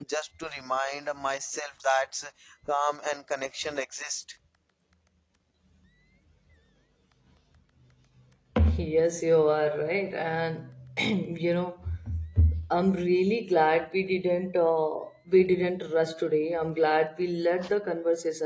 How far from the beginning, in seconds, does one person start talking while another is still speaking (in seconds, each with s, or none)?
none